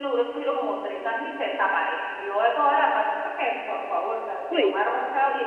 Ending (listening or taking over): listening